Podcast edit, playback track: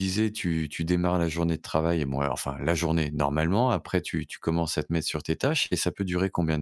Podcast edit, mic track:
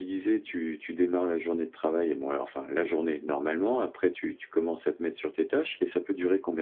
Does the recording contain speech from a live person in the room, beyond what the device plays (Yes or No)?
No